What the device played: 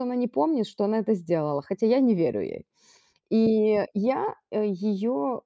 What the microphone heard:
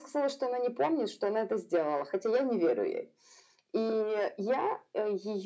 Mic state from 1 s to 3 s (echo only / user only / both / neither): echo only